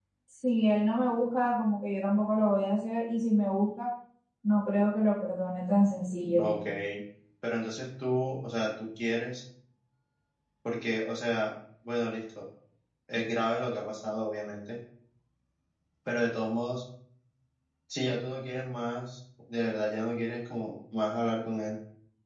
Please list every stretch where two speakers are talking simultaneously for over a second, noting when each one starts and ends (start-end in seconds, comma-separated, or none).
none